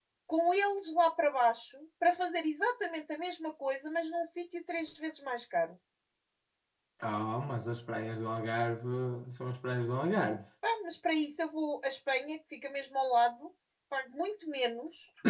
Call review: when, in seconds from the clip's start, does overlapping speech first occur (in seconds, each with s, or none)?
none